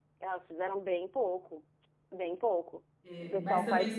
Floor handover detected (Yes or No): Yes